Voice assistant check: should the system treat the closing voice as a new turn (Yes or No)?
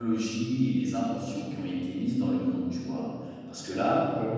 No